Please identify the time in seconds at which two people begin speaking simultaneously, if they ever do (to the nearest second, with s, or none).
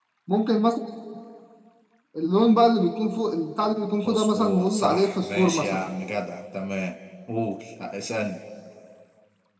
4 s